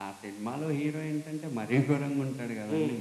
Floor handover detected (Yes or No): Yes